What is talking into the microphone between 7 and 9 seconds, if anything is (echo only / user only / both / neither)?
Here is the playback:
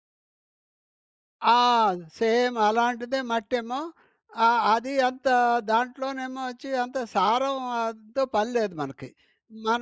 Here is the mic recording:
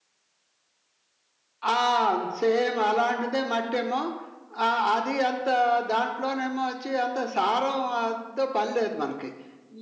echo only